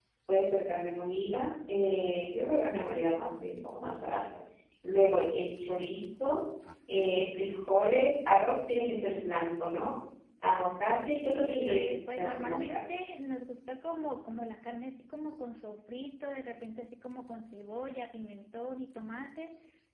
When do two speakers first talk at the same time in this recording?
11.4 s

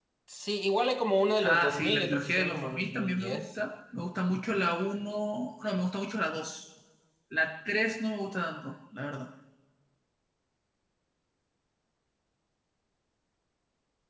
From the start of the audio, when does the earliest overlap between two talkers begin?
1.4 s

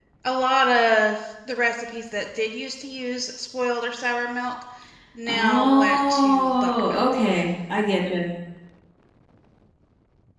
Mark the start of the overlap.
5.3 s

